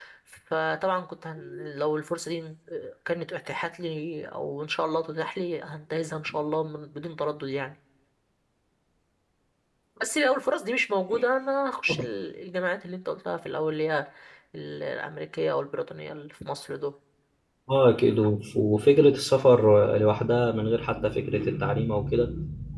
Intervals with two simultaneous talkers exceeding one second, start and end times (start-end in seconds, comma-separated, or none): none